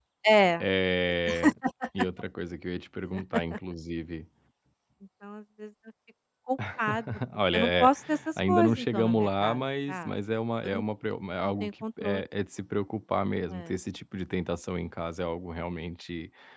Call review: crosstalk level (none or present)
present